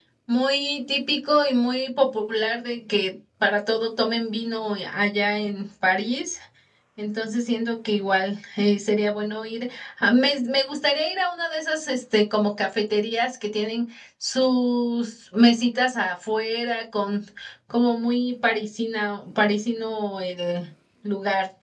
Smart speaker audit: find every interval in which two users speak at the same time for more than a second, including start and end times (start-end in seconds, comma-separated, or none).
none